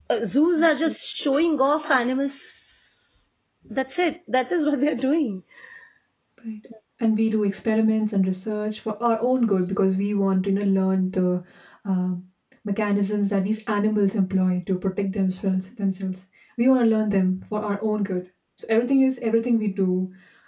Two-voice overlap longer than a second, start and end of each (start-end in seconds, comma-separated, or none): none